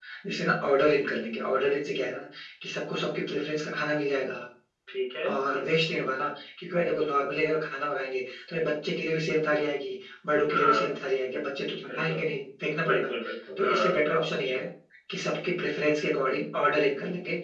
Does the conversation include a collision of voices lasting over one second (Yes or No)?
No